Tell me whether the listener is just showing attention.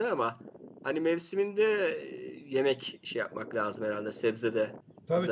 No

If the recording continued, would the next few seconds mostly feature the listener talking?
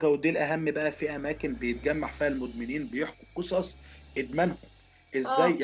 No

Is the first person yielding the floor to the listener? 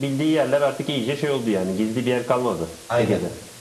Yes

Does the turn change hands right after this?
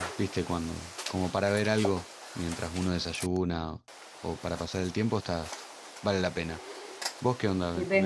Yes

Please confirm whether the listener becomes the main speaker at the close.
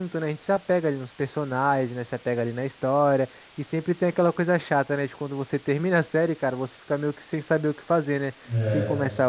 No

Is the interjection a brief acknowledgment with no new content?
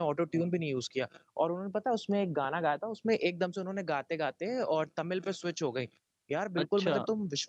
Yes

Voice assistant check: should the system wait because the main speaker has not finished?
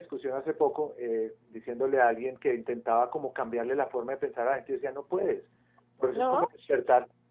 Yes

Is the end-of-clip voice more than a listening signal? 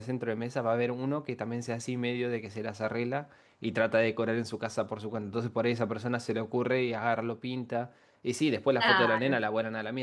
No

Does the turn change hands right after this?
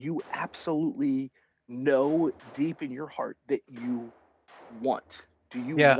Yes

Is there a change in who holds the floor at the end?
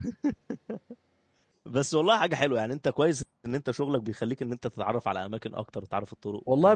Yes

